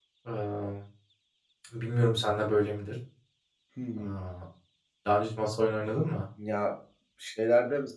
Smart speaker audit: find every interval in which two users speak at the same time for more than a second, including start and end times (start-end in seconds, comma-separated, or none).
none